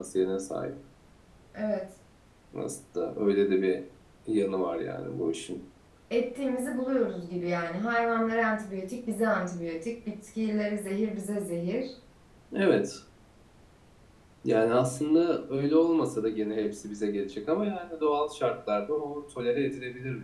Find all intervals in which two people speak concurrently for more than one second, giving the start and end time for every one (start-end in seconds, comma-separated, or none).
none